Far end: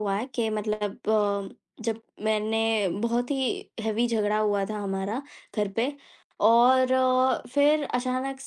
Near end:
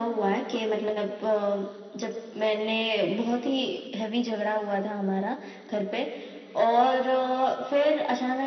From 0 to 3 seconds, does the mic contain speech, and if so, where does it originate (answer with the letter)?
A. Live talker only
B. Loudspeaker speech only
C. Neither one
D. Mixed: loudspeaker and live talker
B